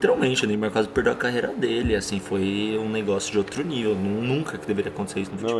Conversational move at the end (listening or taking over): taking over